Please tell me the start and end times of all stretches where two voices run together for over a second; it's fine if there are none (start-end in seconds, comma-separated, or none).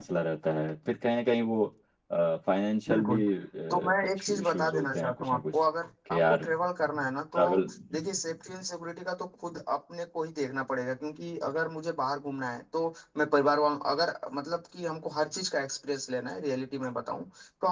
4.2-5.6